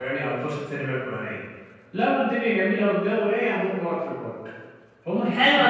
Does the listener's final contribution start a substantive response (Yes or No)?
Yes